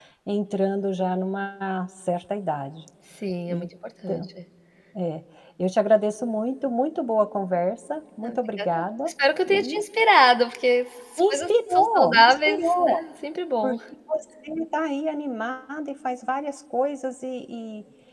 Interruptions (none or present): present